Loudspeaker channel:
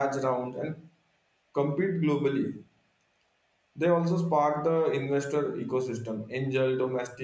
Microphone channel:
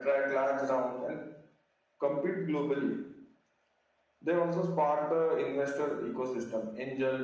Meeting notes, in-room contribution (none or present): none